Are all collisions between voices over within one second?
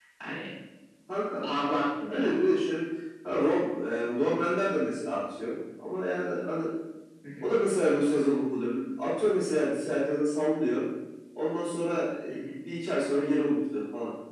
Yes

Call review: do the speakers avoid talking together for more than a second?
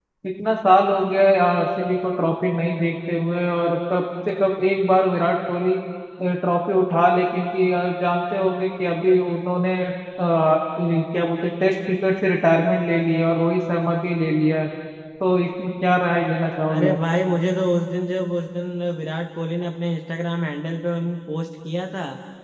Yes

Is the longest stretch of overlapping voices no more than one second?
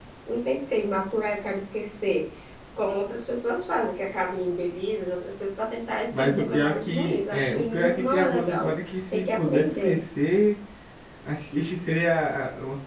No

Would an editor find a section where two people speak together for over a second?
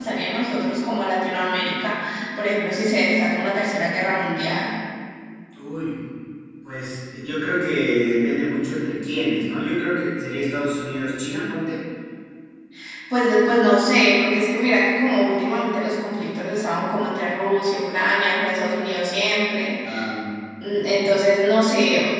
No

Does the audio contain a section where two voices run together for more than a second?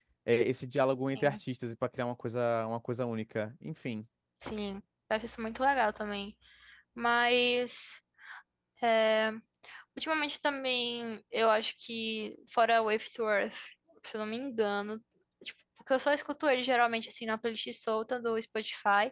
No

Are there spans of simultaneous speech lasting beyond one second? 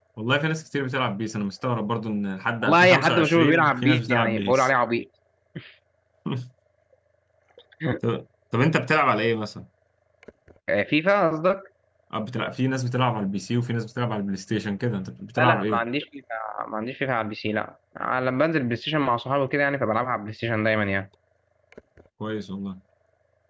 Yes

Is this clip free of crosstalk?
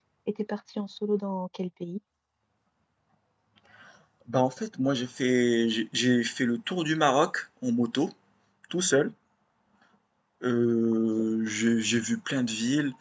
Yes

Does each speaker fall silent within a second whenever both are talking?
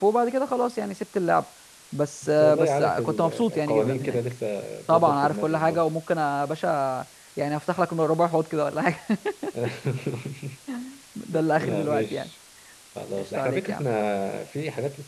No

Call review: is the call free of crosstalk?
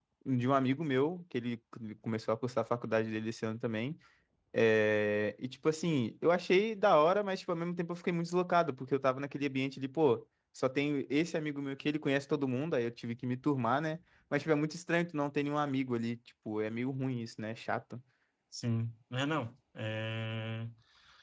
Yes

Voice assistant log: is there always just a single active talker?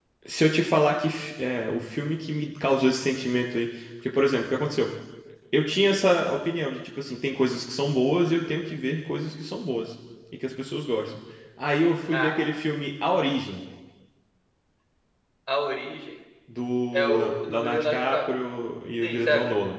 No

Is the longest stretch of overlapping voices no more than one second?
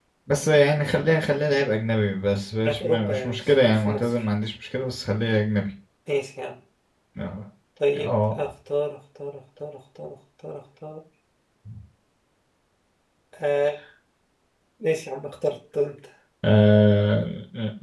No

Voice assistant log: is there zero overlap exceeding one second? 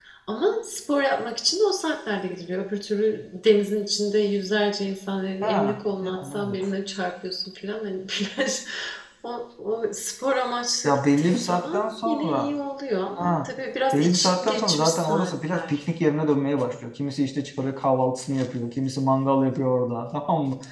No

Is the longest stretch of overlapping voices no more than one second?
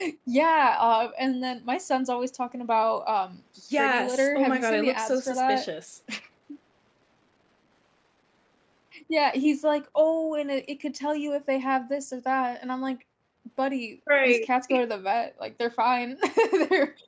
No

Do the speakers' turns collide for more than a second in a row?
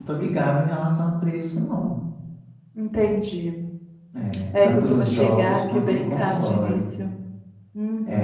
Yes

